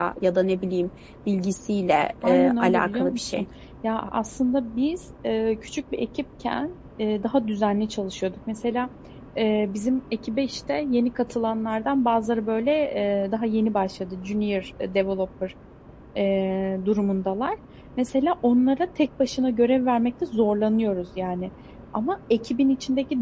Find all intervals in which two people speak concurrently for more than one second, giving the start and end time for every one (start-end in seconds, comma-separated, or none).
2.2-3.5